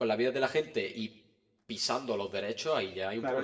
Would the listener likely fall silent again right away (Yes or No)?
No